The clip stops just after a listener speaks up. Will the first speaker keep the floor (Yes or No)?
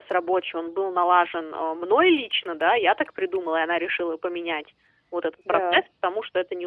Yes